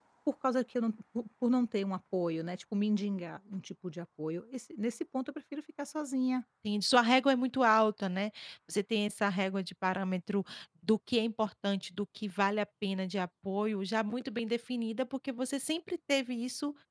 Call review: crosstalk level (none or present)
none